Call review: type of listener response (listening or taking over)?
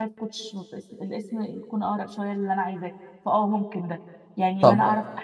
listening